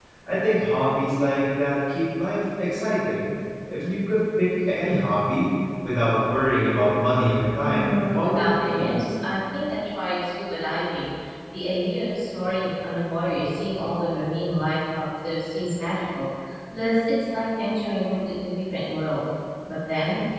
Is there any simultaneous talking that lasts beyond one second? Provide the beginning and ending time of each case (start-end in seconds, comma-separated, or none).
7.6-8.9